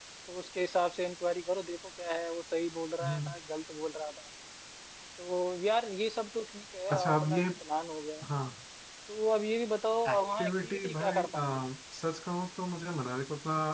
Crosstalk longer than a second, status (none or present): present